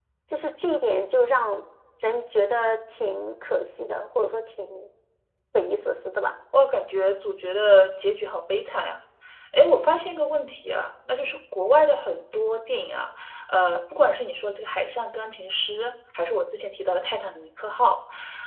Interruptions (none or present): none